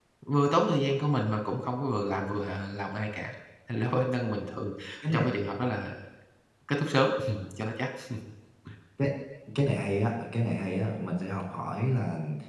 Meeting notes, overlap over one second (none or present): none